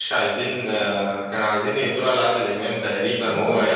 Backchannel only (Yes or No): No